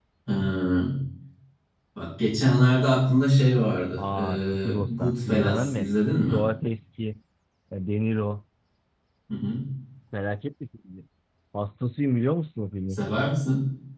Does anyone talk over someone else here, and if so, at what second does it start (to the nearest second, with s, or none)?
4 s